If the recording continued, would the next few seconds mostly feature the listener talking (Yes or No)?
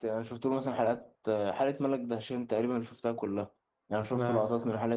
No